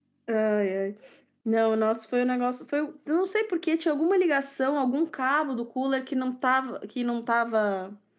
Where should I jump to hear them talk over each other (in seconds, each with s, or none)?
none